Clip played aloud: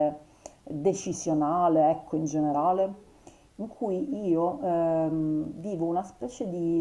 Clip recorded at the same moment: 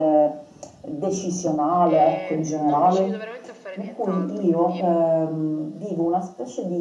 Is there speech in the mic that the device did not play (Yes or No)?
Yes